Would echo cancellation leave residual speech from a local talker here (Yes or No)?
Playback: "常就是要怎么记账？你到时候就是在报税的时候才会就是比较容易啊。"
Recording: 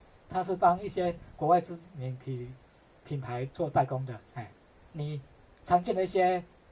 Yes